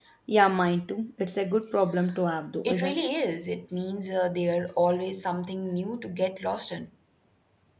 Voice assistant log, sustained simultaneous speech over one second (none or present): none